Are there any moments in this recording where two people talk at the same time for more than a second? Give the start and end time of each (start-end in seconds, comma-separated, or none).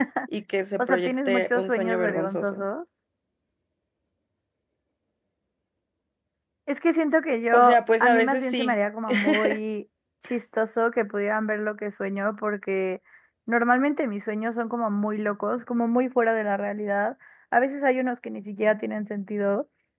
0.8-2.6, 7.5-8.8